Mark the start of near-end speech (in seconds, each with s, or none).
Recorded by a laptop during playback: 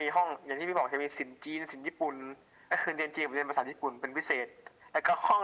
none